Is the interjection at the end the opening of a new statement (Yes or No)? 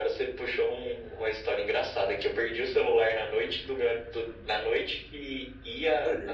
No